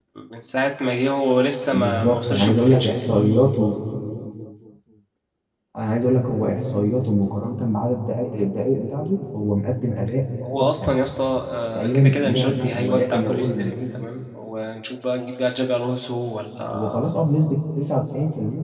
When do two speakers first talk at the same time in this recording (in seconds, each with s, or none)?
1.7 s